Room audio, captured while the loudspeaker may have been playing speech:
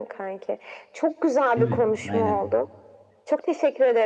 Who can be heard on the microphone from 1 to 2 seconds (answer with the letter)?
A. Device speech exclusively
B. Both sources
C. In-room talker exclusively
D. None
B